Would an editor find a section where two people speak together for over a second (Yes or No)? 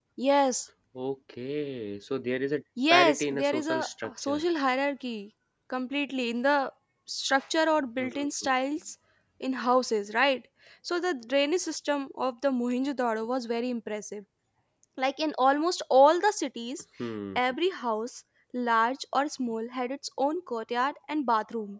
Yes